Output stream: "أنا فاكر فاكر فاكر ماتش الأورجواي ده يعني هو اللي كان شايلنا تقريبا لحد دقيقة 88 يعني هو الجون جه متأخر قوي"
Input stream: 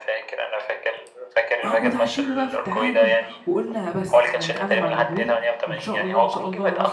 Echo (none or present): present